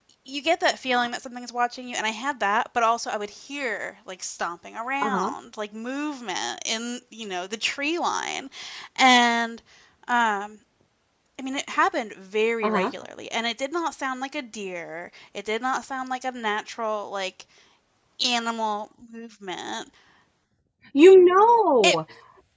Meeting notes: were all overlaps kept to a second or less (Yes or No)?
Yes